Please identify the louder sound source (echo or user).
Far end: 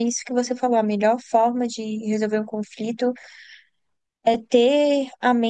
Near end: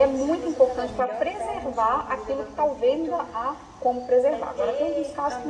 user